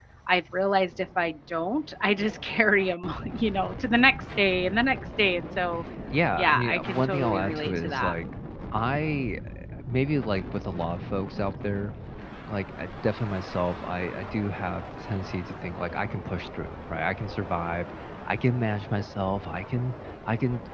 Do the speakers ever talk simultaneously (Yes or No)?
Yes